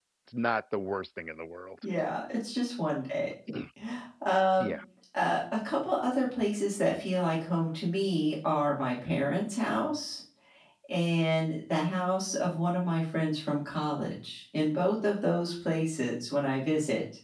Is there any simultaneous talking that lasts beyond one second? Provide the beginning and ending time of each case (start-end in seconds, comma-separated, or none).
none